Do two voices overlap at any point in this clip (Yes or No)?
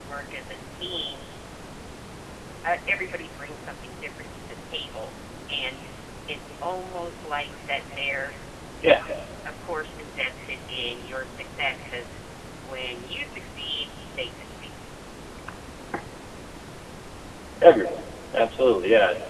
No